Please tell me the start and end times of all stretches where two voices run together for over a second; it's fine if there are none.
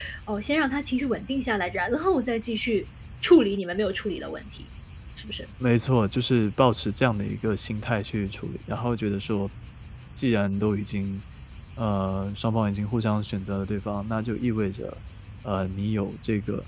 none

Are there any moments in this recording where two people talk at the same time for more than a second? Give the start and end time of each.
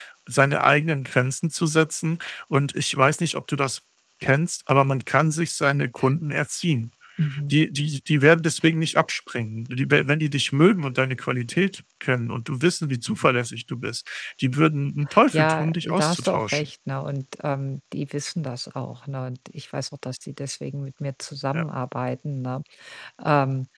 15.3-16.6

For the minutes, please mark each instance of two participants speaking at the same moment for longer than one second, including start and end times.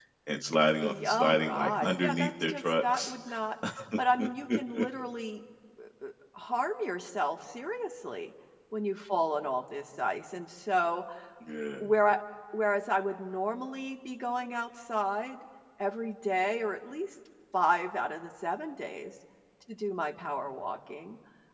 0.8-3.1

